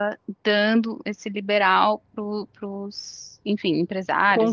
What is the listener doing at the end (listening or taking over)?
taking over